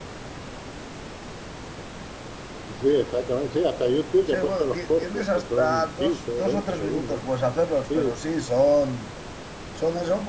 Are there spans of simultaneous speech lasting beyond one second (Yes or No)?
Yes